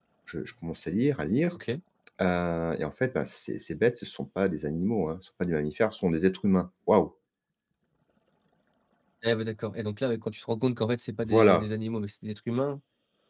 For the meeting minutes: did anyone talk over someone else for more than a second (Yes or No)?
No